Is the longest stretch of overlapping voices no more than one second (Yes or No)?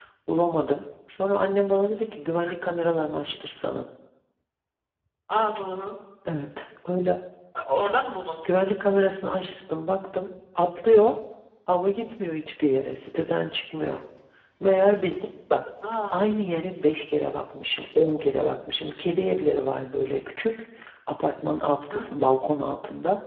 Yes